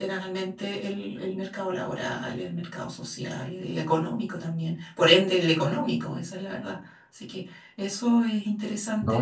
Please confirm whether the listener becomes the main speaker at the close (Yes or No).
Yes